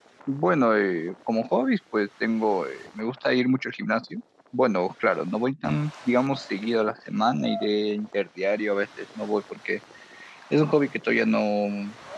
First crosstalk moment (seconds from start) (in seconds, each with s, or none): none